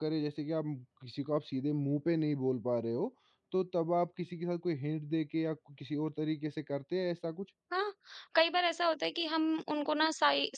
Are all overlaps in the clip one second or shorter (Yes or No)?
Yes